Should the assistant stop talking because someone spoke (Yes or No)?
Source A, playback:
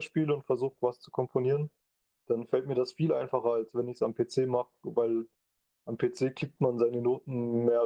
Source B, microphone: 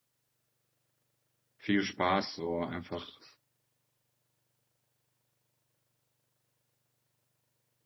Yes